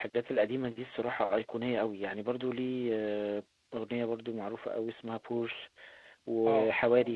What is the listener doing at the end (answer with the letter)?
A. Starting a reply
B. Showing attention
B